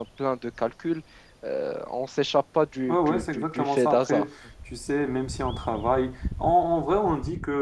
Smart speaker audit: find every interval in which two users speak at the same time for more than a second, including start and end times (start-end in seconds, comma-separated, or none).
2.9-4.2